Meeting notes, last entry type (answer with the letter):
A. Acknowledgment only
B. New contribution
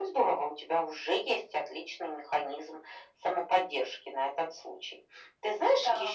A